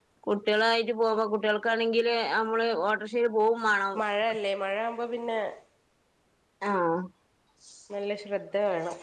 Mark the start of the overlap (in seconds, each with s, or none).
none